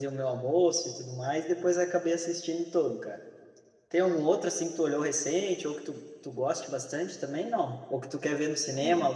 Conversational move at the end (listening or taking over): listening